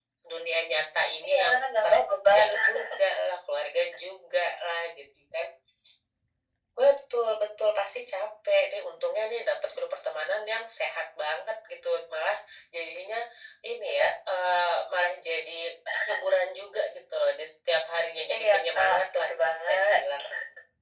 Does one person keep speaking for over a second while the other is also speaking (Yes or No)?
Yes